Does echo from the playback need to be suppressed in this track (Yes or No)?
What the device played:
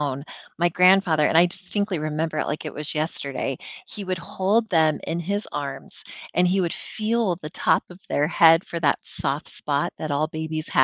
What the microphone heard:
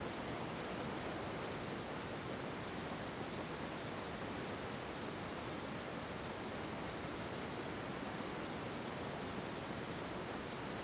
No